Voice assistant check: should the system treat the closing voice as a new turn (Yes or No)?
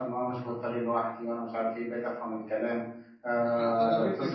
Yes